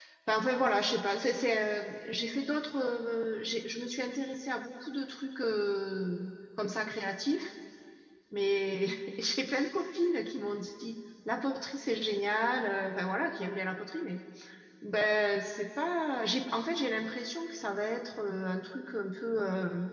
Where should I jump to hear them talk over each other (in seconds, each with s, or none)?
none